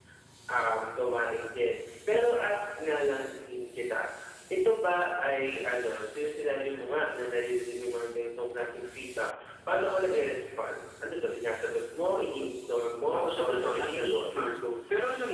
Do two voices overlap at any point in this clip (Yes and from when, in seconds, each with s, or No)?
Yes, from 13.1 s